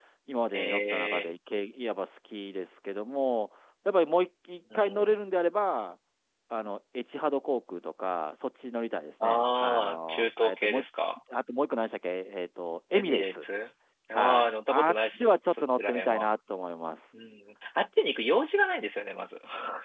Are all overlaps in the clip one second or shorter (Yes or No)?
No